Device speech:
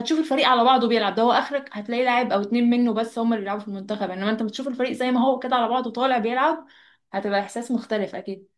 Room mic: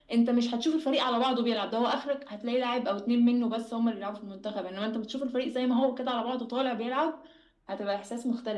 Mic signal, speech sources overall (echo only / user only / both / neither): echo only